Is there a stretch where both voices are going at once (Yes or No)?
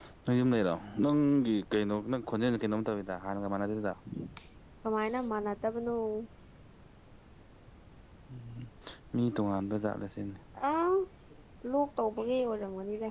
No